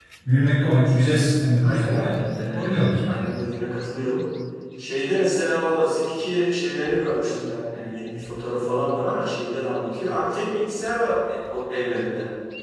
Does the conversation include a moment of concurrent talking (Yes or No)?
Yes